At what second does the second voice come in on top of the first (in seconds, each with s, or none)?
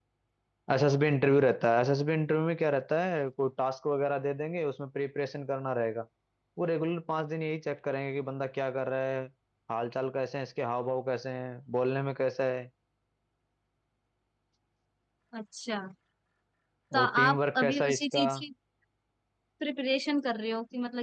17.0 s